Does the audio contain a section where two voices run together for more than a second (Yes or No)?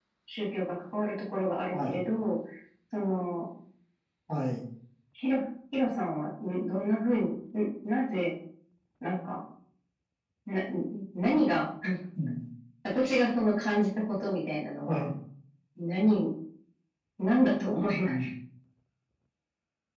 No